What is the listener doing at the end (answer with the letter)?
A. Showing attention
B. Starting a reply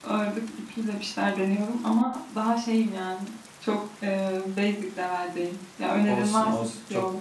B